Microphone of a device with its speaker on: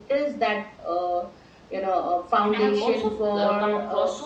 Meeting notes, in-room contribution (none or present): present